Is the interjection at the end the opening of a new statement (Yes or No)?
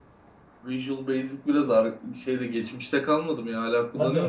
Yes